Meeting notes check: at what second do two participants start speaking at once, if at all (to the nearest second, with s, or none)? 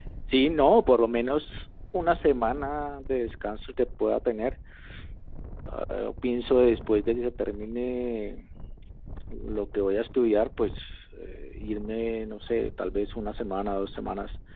none